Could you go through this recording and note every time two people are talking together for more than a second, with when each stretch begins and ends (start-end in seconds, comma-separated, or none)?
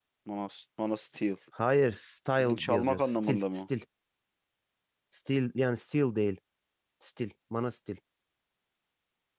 2.4-3.6